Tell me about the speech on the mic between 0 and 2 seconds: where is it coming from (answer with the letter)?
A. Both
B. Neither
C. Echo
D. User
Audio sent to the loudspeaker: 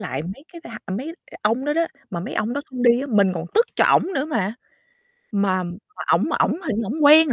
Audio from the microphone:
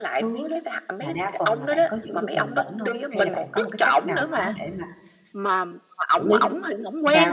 A